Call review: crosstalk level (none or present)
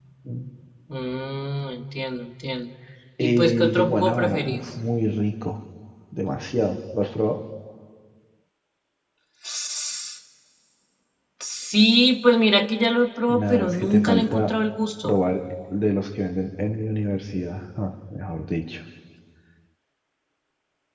present